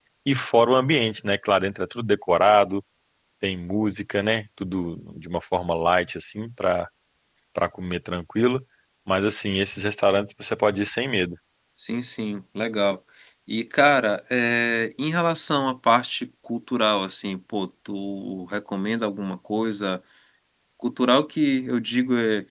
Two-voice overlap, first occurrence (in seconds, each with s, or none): none